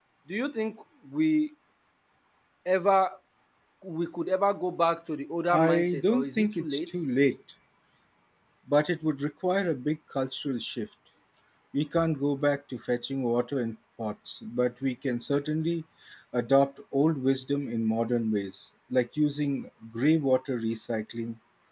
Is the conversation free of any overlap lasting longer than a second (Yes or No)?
No